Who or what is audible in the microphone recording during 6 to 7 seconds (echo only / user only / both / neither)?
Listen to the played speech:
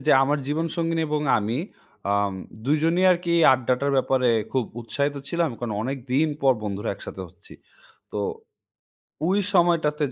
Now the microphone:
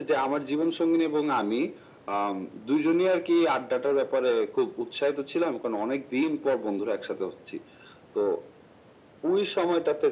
echo only